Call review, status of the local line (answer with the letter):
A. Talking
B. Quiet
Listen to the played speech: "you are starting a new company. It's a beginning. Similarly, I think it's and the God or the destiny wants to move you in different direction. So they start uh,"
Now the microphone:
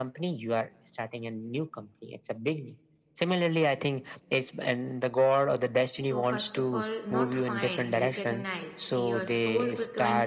A